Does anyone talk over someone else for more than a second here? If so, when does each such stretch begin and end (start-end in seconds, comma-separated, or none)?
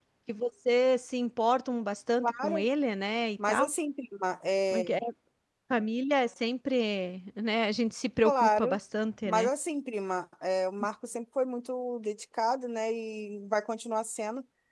none